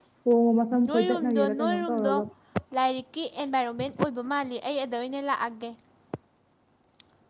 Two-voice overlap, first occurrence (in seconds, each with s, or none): 0.9 s